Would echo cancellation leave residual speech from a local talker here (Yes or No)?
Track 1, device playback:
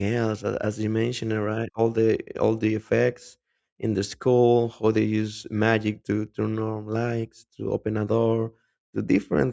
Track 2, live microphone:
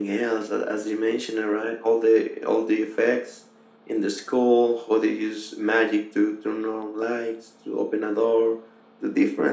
No